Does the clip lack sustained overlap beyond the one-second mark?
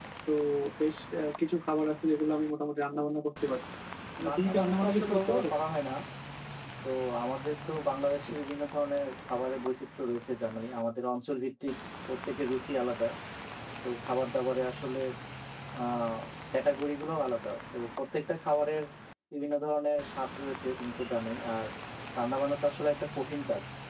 No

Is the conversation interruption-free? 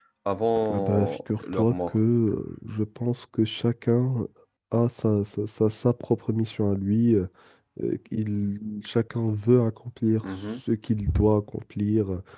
No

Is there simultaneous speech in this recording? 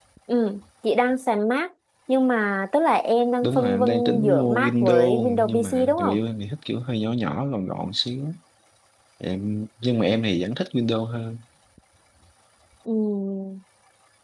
Yes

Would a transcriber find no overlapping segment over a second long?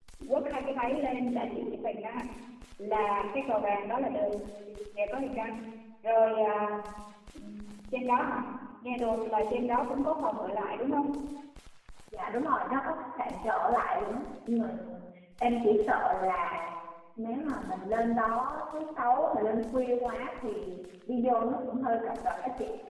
Yes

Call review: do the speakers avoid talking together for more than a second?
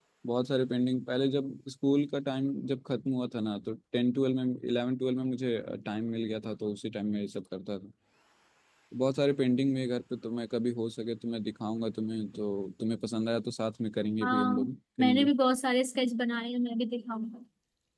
Yes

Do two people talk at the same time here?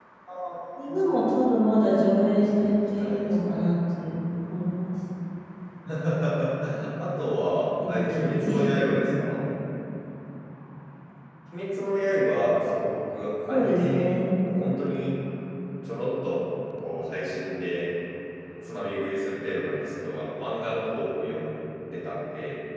Yes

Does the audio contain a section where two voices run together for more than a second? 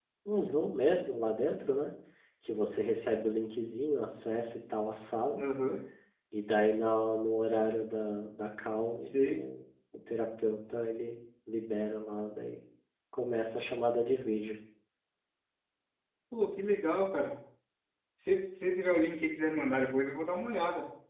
No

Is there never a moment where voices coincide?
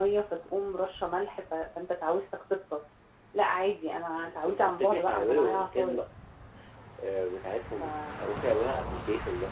No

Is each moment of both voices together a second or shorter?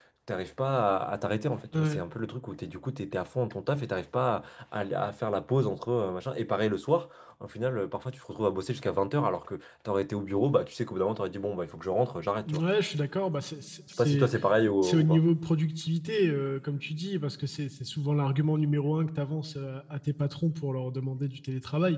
Yes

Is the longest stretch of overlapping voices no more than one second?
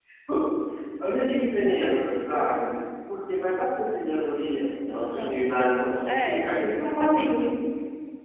No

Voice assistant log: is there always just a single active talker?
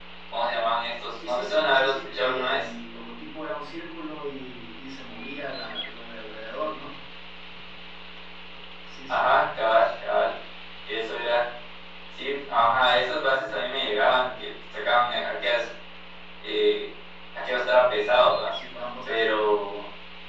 No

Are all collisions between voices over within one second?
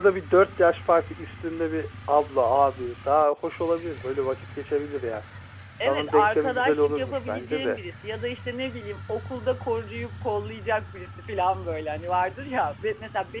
No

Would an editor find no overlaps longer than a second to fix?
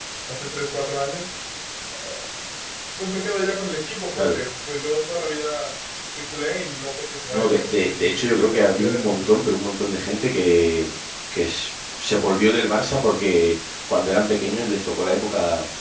No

